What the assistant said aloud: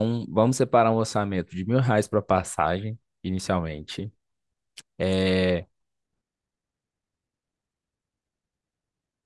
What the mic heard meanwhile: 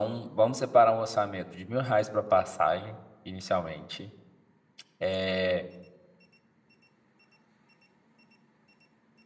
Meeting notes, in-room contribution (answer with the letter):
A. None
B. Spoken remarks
A